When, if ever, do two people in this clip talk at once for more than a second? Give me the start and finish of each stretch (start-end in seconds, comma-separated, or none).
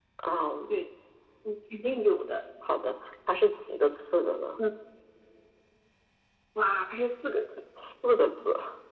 none